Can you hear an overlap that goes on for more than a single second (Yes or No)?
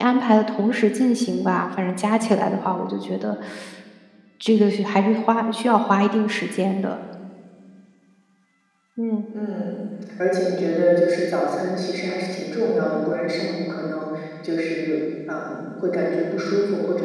No